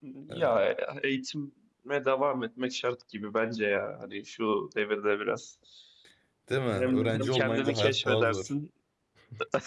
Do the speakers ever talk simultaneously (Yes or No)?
Yes